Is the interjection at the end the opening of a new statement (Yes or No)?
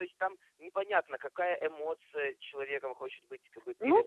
Yes